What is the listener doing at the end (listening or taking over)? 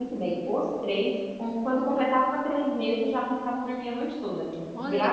taking over